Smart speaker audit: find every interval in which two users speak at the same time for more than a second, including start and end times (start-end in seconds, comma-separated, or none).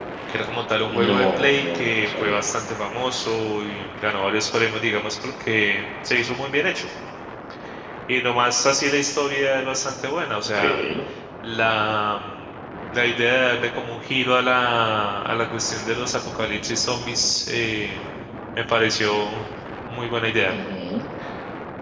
0.9-2.4